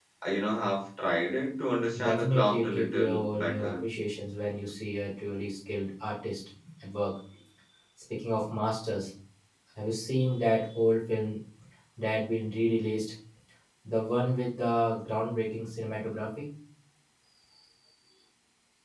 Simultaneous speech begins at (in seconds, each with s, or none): 1.9 s